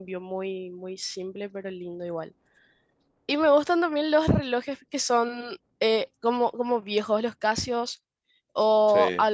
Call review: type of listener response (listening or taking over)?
listening